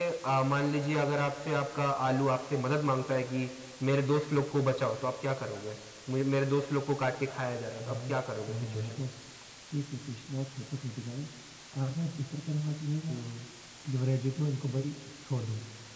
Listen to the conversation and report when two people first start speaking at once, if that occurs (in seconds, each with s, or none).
7.8 s